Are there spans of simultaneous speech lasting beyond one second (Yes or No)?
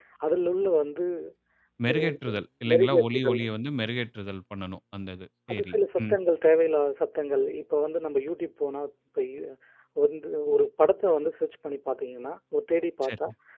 Yes